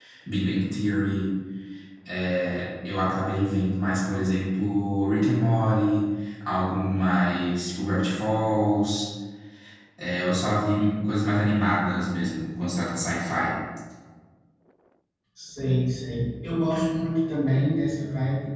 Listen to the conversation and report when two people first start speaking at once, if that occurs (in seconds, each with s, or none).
none